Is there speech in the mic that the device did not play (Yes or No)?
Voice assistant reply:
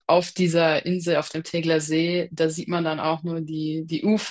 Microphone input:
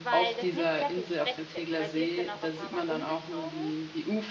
Yes